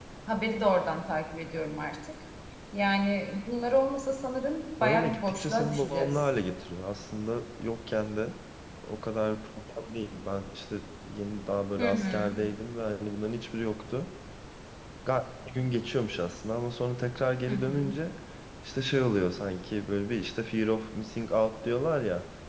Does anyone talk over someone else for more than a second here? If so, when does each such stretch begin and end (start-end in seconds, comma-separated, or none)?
4.8-6.2